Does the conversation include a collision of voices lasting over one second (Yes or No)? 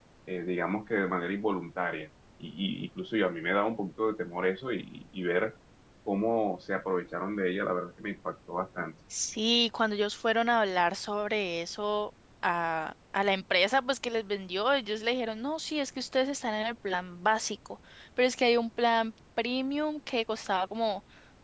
No